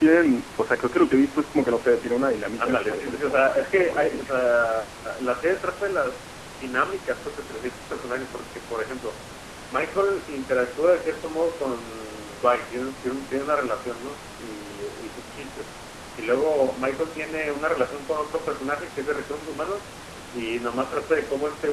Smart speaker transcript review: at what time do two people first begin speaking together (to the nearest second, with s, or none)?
3 s